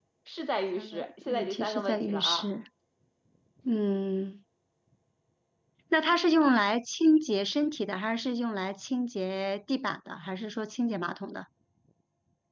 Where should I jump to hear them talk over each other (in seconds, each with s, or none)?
0.8 s